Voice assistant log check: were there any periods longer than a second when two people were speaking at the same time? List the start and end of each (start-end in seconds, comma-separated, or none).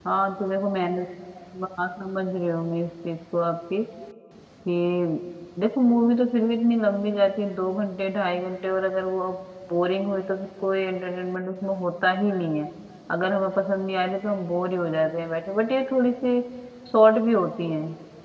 none